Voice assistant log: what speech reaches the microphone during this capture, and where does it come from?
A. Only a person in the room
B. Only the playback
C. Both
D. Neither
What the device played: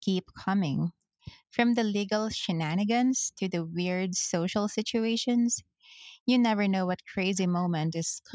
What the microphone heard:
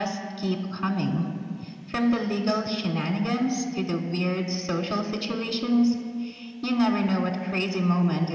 B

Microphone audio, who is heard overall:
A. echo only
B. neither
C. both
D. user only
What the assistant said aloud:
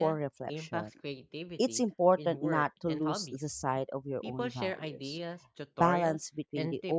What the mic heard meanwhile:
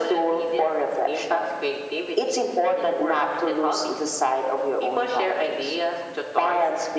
A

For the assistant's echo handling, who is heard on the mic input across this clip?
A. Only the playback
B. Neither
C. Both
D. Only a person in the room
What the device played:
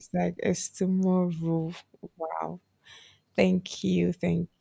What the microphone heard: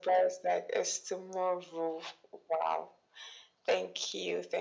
A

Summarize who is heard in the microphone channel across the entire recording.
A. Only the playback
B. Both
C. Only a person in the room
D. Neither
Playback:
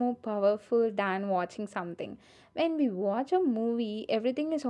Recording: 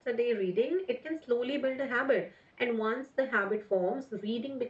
C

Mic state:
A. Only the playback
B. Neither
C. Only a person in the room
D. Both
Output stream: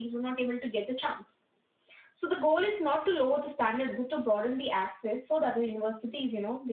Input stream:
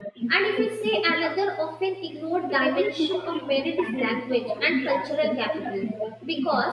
D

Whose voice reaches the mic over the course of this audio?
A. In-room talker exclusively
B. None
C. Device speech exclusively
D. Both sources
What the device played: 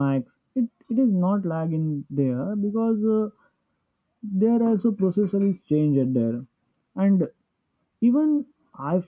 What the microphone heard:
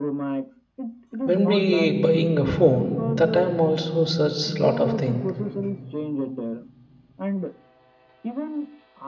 D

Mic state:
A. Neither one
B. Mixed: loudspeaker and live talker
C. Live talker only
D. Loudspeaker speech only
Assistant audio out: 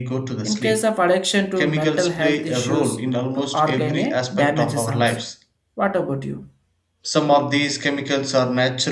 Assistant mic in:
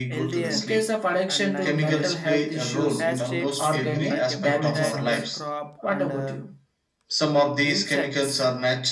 B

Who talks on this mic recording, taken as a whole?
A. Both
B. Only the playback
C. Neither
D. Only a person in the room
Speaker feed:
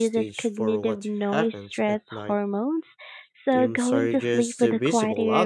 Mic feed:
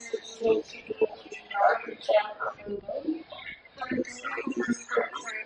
B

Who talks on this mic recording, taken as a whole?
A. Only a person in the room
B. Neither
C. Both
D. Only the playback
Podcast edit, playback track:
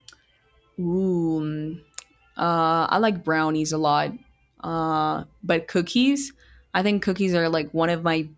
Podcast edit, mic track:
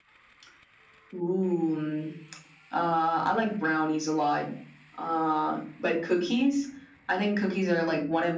D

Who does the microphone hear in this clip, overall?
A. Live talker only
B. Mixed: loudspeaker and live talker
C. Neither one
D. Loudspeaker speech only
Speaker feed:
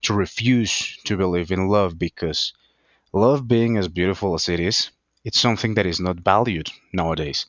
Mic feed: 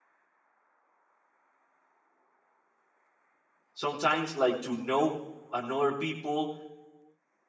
A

